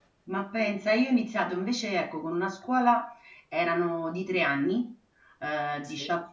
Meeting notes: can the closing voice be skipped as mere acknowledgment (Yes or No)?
Yes